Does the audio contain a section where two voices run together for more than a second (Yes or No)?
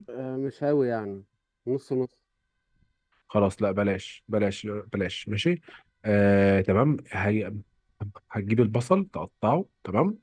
No